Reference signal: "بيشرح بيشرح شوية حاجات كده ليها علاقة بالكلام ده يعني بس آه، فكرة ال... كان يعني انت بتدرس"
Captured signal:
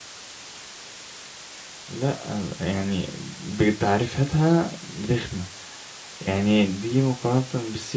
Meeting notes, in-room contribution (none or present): present